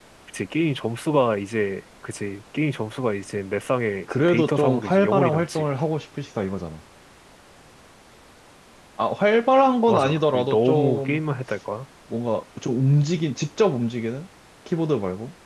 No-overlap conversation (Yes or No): No